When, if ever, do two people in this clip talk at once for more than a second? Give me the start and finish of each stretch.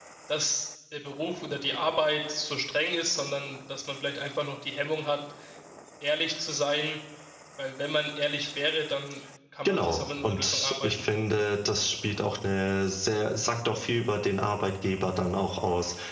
9.7-11.1

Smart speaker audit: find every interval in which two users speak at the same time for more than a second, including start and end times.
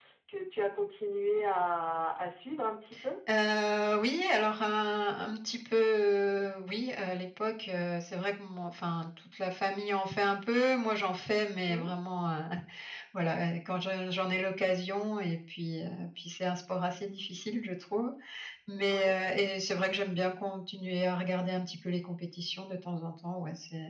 none

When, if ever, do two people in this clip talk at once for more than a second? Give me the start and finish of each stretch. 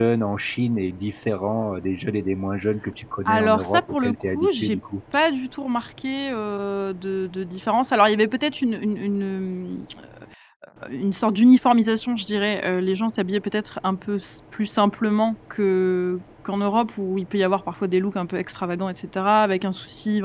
3.3-4.8

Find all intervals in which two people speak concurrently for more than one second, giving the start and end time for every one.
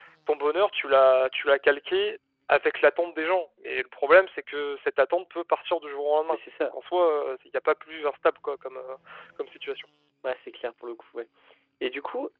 none

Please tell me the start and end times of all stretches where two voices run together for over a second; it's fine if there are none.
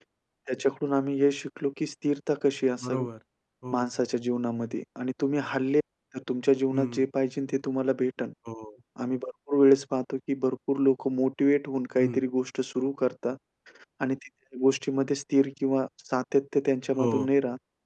none

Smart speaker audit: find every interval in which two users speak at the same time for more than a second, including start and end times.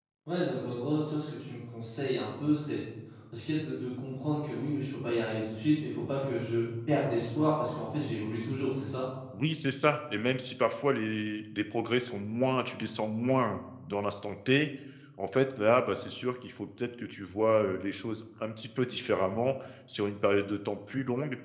none

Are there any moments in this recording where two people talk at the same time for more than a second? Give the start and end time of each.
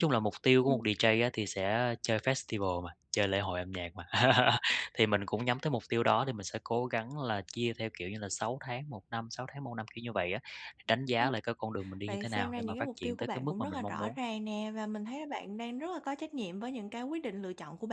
12.1-14.2

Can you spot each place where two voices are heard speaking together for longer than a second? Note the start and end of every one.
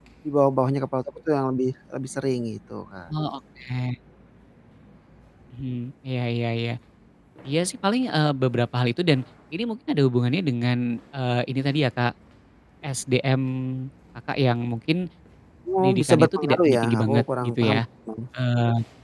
15.8-17.8

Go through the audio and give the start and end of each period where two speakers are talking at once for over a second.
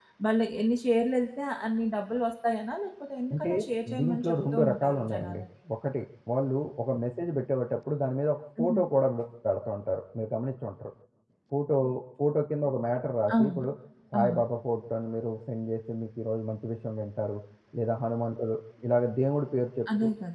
4.0-5.4

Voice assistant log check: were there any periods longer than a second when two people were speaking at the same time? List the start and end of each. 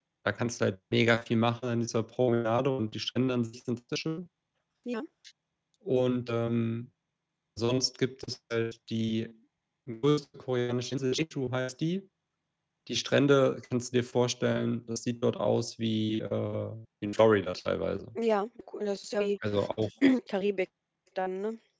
none

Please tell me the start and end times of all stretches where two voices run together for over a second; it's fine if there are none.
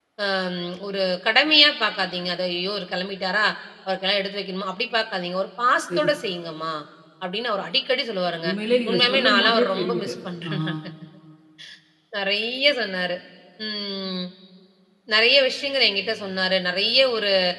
8.9-10.1

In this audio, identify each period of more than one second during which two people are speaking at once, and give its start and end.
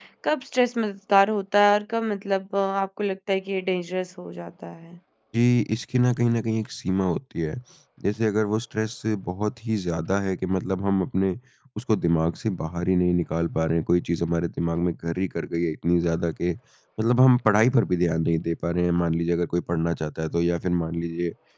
none

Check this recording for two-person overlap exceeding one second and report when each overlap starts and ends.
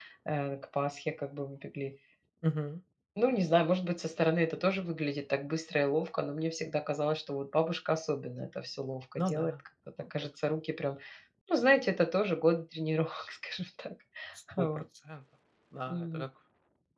none

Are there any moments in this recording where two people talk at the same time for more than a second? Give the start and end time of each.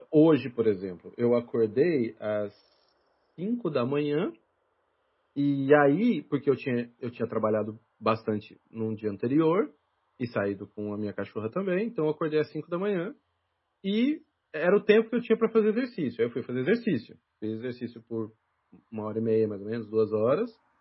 none

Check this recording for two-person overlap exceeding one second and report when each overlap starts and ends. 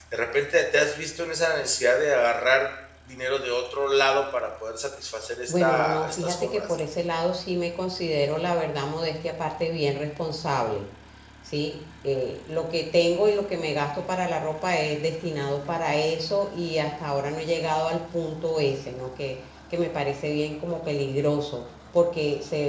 5.5-6.8

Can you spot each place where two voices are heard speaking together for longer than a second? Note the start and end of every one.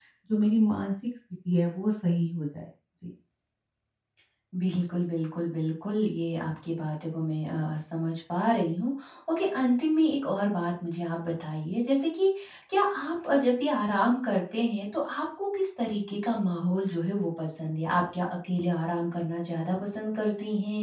none

